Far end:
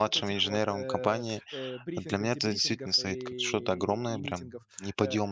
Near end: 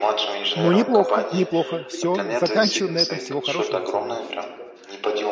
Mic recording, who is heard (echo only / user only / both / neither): both